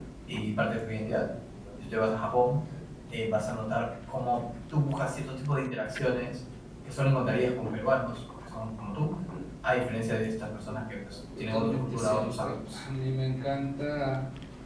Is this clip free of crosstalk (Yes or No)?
No